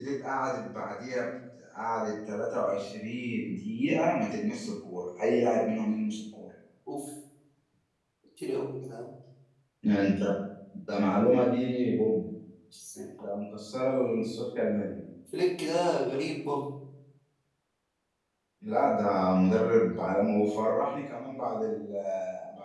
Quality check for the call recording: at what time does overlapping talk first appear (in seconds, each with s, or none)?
none